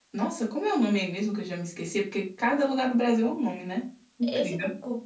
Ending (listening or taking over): taking over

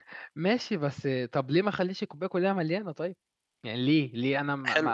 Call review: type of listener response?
taking over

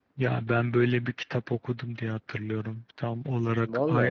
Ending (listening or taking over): listening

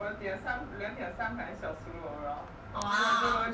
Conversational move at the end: listening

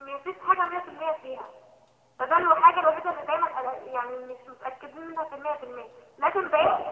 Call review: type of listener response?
listening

